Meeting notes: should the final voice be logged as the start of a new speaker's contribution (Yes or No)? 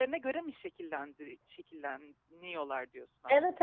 Yes